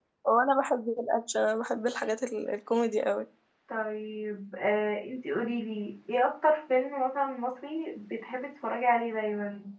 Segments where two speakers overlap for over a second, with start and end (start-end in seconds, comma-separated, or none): none